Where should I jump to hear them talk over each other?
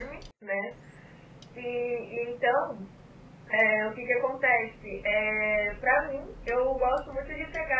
none

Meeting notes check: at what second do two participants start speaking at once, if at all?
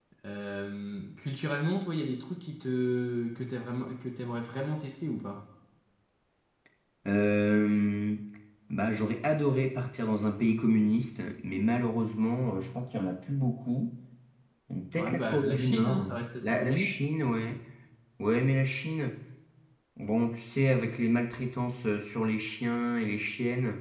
14.9 s

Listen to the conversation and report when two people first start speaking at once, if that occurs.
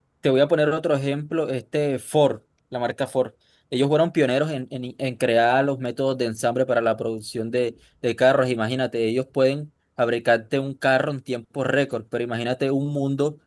none

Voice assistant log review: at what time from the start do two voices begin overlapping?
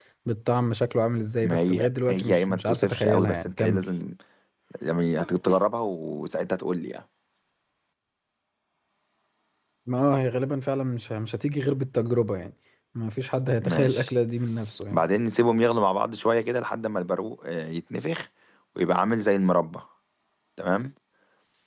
1.4 s

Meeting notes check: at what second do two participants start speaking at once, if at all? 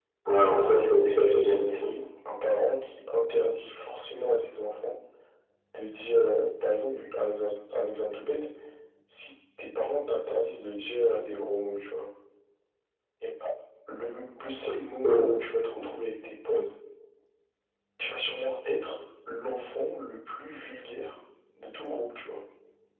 0.5 s

